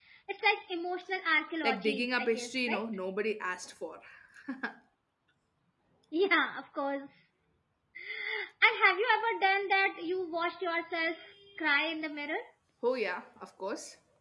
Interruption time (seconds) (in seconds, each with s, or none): 1.6 s